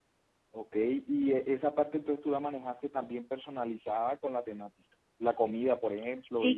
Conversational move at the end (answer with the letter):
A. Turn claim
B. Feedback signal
A